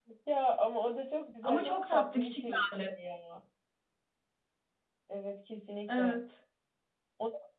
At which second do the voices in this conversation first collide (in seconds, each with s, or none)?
1.4 s